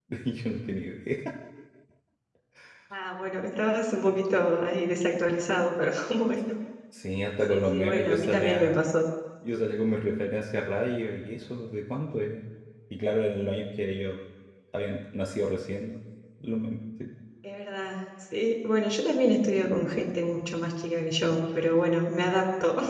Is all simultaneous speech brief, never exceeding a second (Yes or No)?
No